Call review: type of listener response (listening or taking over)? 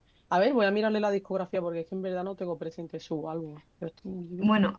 taking over